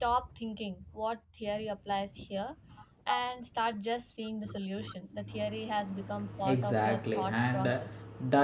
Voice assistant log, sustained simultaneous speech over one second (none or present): present